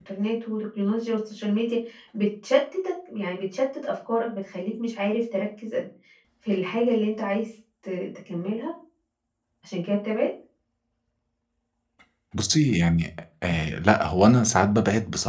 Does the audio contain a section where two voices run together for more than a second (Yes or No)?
No